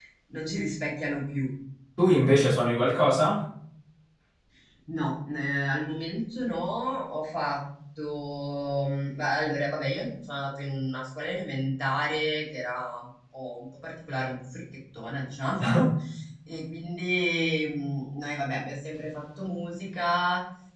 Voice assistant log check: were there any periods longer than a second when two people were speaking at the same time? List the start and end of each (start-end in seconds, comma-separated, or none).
none